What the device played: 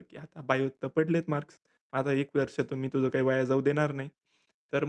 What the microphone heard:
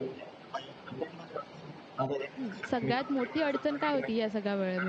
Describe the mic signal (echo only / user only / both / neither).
both